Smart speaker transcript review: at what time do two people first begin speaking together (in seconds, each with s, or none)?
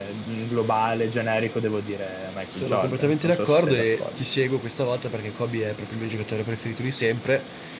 2.5 s